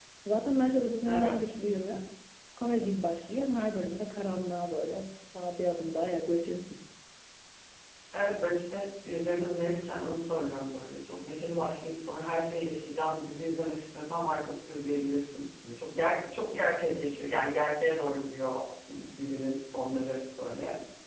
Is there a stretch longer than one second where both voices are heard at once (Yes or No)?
No